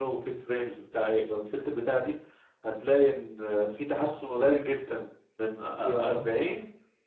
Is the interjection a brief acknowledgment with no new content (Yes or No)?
Yes